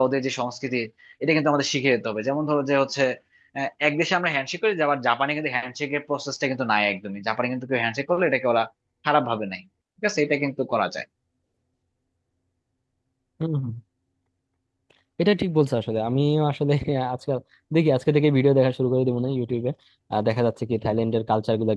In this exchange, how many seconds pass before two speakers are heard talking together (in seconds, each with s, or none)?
none